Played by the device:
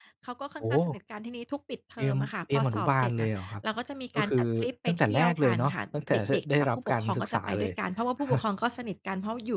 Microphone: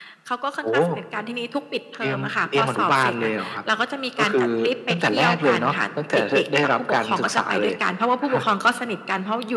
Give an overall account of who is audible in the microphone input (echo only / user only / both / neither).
echo only